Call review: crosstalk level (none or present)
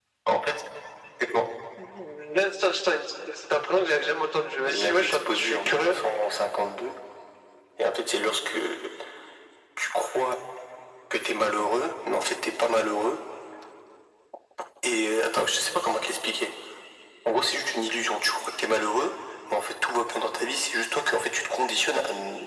present